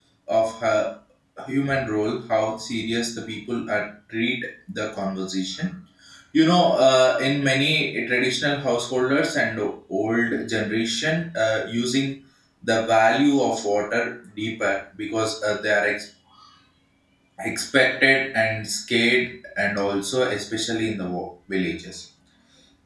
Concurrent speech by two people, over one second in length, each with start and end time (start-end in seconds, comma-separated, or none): none